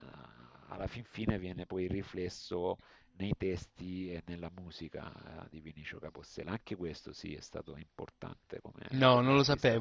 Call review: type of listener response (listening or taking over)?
taking over